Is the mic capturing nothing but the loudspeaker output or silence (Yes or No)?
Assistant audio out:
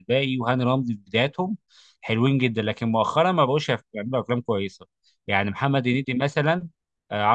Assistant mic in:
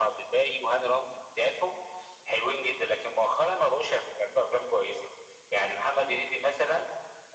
Yes